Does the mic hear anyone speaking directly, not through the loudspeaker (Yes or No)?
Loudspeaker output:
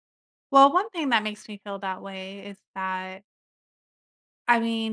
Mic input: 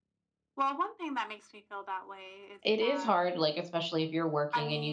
Yes